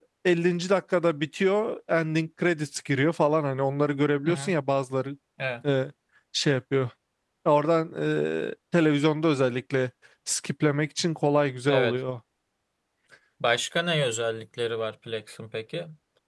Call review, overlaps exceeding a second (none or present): none